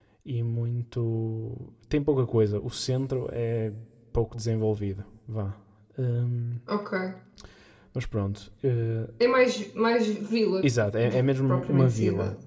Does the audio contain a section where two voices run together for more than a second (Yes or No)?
Yes